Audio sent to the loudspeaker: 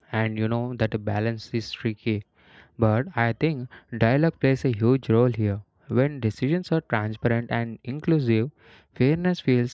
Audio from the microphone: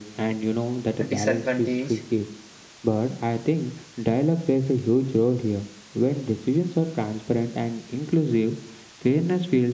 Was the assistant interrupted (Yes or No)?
Yes